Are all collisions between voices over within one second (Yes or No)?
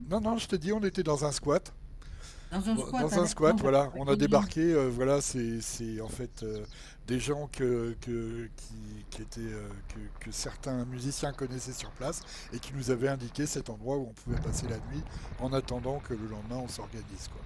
No